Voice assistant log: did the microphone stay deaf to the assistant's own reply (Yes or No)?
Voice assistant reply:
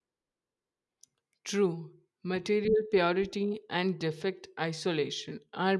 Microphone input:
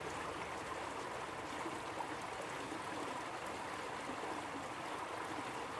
Yes